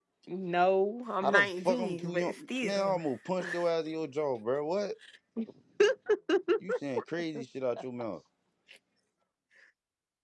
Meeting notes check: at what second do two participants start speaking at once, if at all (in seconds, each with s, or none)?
1.2 s